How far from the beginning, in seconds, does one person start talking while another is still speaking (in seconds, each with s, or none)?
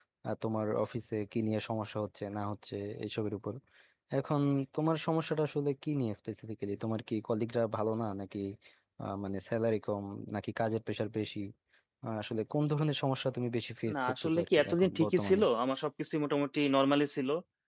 13.9 s